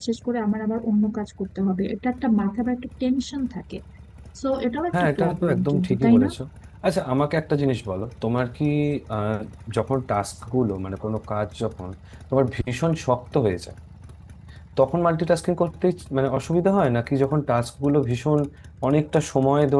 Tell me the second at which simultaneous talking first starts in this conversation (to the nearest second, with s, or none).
5 s